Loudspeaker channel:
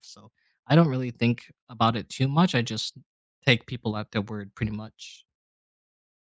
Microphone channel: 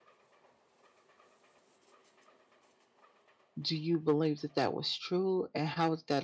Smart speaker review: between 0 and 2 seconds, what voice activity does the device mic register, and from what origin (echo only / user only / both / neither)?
neither